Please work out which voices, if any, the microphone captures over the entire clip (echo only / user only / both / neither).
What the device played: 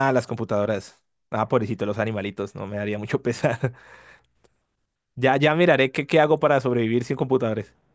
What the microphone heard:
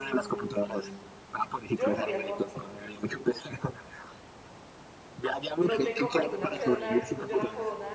both